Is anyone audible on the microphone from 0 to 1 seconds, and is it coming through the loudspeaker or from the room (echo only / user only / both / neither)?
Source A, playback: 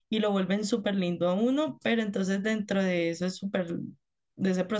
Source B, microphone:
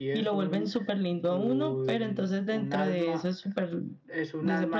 both